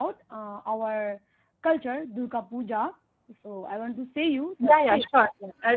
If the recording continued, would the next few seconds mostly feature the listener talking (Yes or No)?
Yes